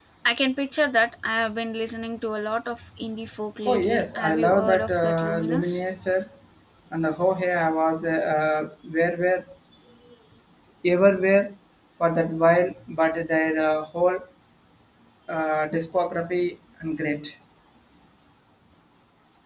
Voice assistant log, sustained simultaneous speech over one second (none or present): present